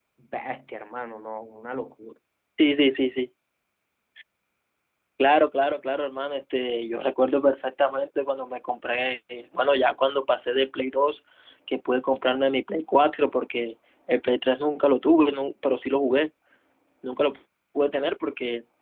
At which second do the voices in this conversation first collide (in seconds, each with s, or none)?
none